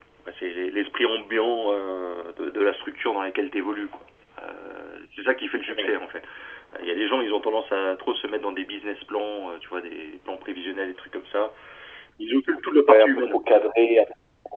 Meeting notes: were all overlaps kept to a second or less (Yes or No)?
Yes